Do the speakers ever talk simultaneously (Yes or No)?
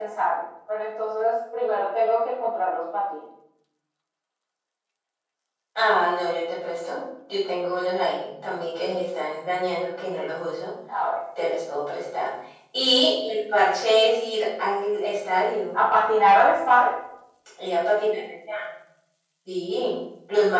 No